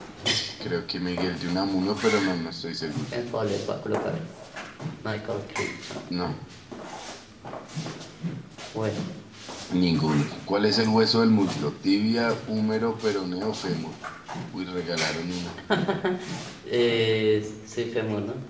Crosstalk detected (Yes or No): No